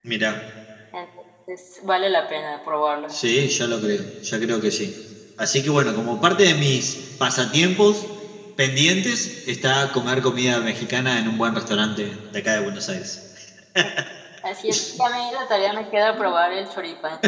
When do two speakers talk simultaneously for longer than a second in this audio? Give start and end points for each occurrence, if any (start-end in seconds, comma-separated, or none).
none